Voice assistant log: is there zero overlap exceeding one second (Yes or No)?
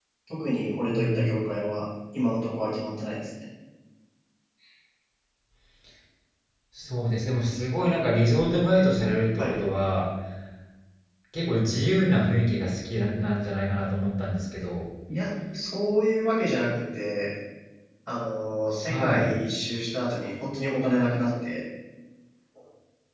Yes